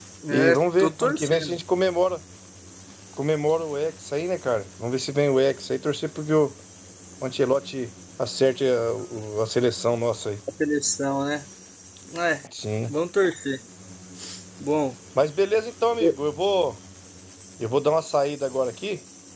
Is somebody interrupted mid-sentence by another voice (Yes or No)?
Yes